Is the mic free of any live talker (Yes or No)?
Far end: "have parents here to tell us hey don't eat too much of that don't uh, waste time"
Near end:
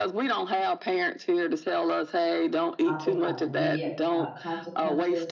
No